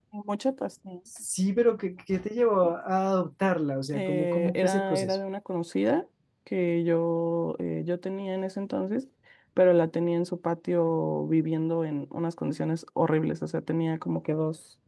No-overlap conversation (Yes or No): No